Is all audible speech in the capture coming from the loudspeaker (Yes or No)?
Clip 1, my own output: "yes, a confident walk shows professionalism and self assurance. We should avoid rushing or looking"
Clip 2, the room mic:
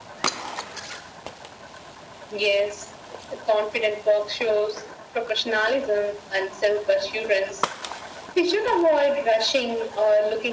Yes